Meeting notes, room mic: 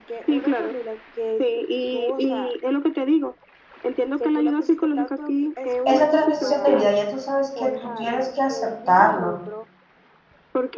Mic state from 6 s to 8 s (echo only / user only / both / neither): both